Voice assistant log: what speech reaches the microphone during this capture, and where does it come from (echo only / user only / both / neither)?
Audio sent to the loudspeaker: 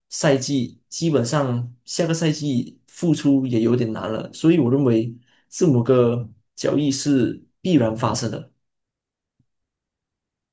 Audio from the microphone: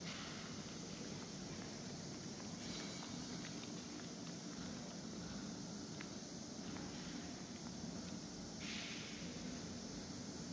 neither